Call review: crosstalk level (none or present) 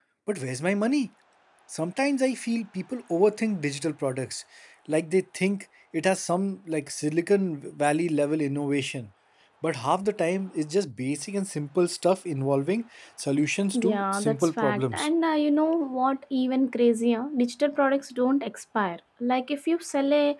present